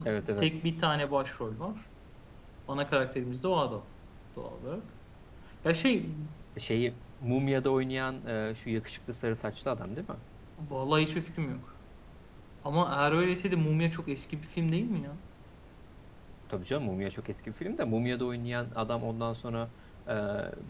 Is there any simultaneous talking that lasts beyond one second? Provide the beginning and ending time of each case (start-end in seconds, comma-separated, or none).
none